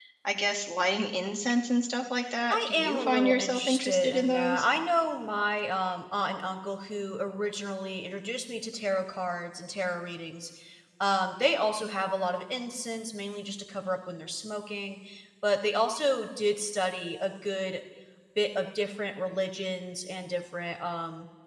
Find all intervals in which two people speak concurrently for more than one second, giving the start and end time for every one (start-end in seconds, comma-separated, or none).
2.5-4.6